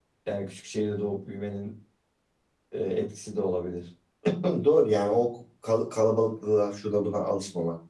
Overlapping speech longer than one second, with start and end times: none

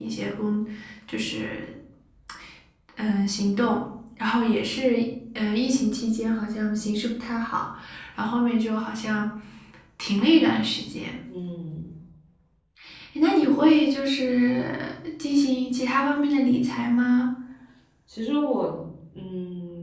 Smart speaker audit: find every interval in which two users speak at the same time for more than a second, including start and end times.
none

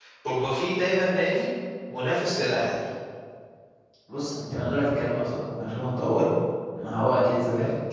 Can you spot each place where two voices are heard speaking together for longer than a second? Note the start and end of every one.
none

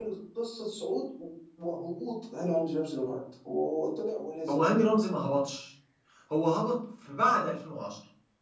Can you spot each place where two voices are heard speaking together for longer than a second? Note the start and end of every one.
none

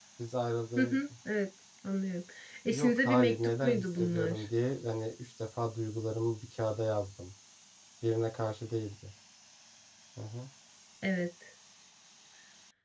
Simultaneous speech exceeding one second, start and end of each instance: 2.7-4.4

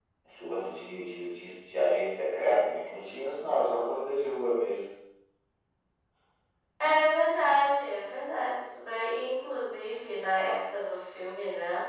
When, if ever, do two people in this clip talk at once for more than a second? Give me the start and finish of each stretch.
none

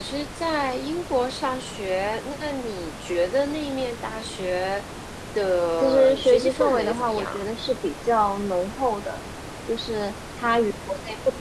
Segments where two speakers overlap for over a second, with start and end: 5.8-7.4

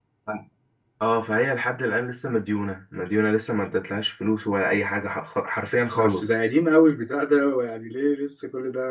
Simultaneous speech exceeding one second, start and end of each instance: none

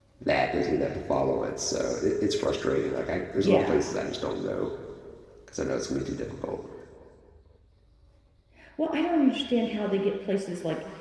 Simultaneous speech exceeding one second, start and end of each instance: none

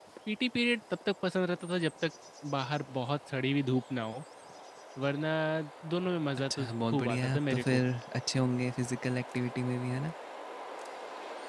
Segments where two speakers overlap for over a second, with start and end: 6.5-7.8

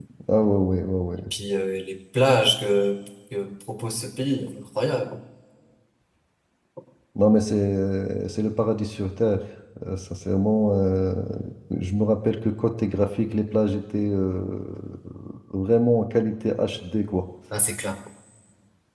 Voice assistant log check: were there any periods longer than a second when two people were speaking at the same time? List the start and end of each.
none

